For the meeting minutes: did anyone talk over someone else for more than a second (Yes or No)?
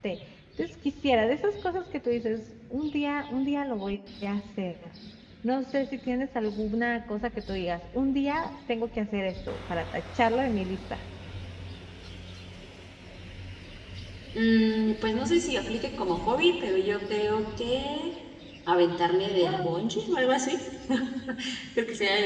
No